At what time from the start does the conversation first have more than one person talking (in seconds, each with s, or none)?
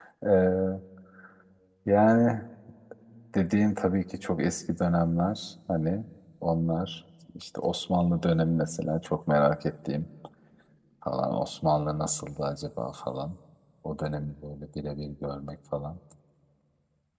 none